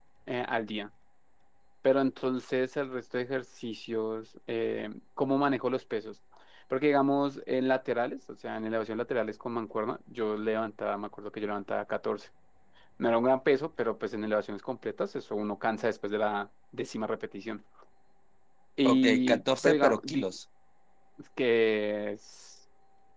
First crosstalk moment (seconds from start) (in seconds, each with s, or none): 18.9 s